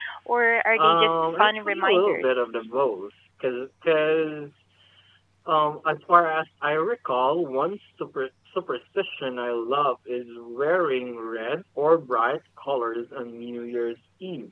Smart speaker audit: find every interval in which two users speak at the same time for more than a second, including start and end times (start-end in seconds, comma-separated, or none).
0.8-2.4